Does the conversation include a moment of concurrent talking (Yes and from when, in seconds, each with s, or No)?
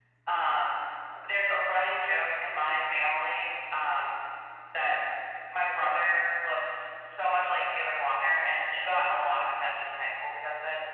No